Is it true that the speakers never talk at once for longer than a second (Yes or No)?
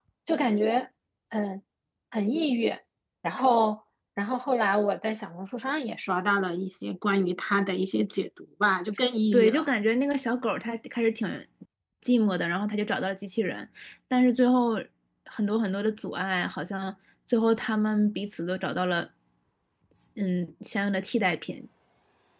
Yes